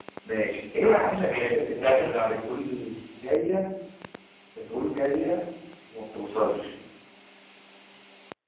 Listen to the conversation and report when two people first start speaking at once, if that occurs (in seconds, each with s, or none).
0.8 s